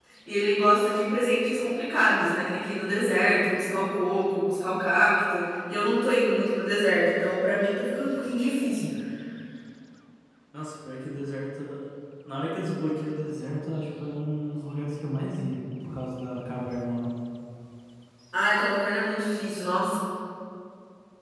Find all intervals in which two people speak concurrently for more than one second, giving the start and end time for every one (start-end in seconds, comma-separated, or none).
none